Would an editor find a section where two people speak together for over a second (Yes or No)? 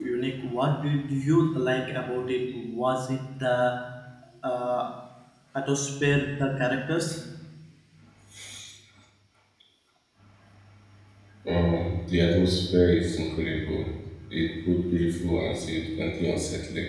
No